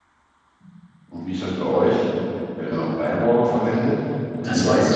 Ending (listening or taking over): taking over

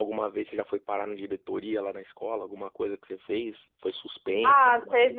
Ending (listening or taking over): taking over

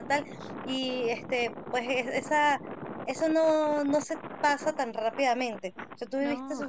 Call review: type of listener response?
listening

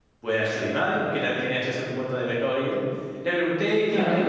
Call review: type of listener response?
listening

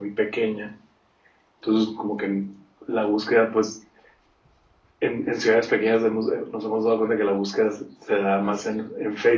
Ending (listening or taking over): listening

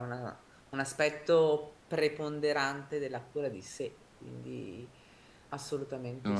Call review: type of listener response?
taking over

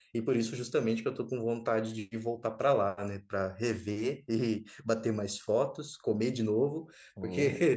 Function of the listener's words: listening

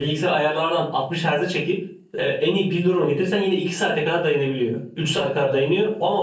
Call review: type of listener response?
listening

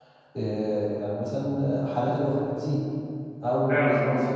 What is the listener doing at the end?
listening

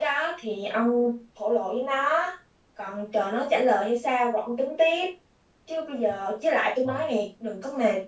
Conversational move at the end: listening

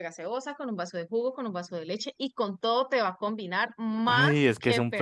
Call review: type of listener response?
taking over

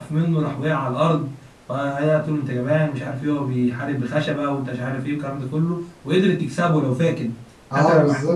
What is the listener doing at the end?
taking over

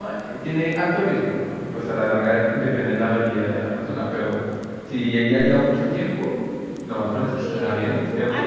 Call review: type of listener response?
taking over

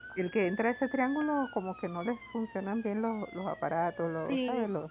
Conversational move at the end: listening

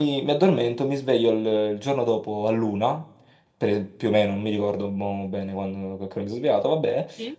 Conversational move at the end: listening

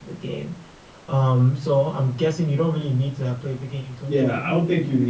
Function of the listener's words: taking over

